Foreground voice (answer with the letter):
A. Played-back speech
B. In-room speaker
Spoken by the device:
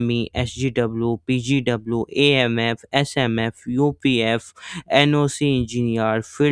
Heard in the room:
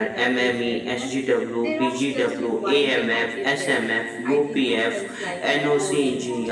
A